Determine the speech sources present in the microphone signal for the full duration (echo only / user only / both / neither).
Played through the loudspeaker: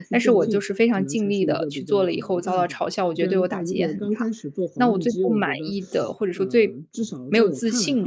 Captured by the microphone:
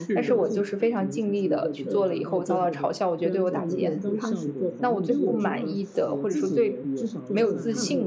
both